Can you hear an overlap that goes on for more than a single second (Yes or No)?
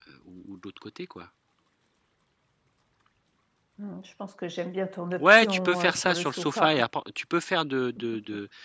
Yes